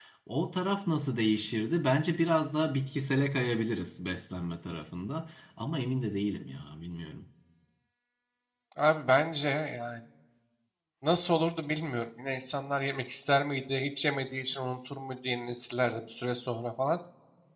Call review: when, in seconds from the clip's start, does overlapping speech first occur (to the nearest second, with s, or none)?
none